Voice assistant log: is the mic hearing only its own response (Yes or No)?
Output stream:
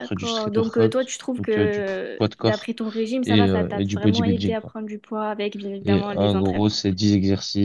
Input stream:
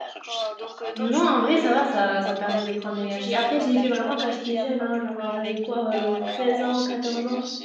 No